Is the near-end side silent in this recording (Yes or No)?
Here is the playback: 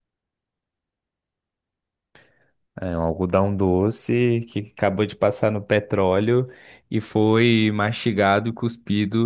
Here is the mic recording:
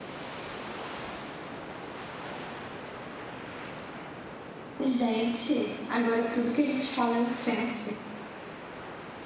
No